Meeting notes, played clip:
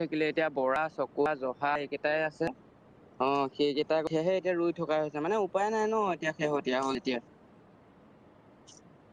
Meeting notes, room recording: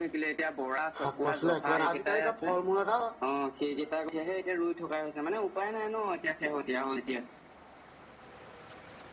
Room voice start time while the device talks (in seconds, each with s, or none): 1.0 s